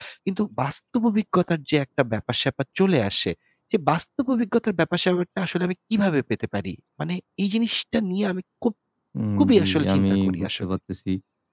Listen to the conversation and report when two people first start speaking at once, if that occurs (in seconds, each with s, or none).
9.4 s